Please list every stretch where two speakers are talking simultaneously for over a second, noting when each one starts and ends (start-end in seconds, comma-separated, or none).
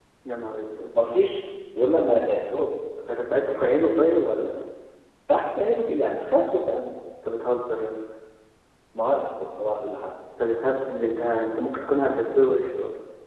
none